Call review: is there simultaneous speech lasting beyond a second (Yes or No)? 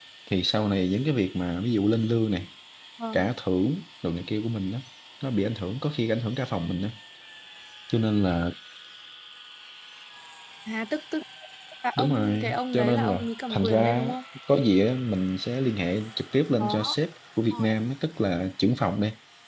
Yes